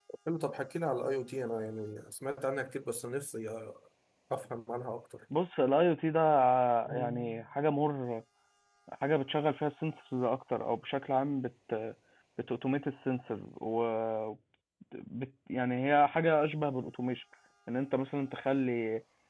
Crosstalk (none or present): none